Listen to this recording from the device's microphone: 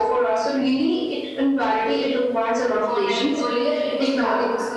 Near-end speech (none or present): present